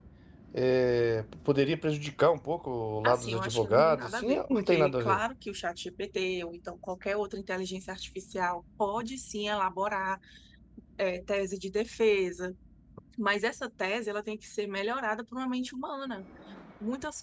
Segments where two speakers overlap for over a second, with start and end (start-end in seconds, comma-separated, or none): 3.0-5.2